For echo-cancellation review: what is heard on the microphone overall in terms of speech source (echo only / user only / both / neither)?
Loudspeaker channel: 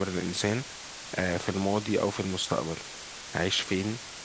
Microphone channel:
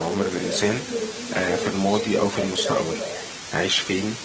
both